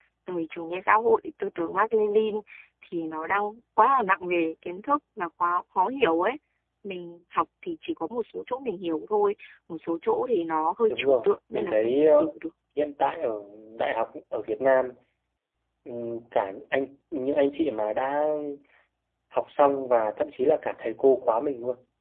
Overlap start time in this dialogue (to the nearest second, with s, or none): 11 s